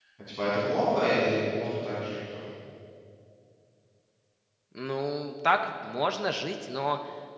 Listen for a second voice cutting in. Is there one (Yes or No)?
No